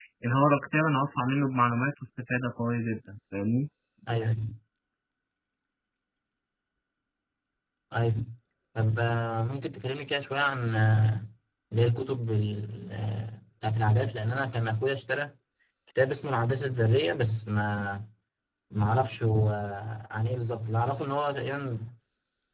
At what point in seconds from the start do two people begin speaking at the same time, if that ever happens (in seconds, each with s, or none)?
none